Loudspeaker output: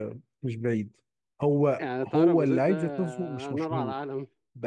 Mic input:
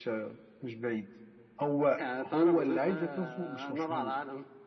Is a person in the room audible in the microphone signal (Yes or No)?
No